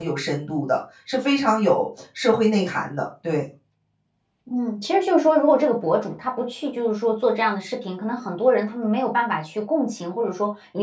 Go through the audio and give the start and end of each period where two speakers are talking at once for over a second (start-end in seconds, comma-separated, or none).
none